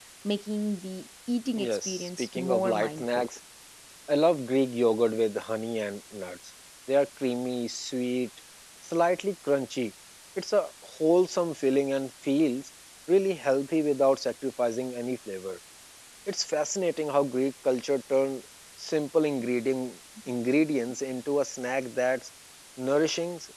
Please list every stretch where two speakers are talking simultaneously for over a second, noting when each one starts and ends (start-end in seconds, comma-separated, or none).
1.6-3.3